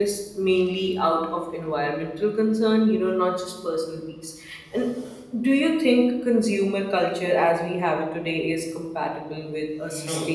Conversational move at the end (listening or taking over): taking over